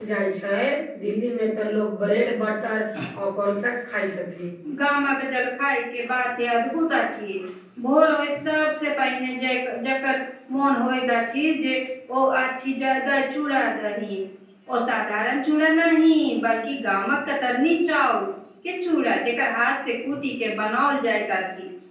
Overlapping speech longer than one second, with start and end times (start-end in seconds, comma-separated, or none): none